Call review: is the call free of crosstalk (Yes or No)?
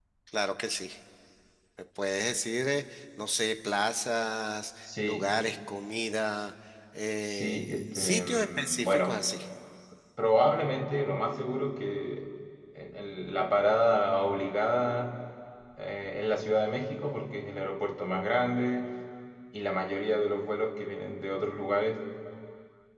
No